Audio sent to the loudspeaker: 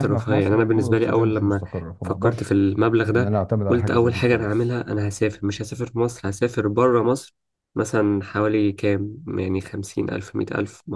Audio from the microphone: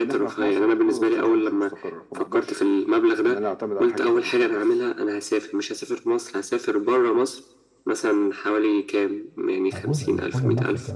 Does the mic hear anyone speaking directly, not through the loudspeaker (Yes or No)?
Yes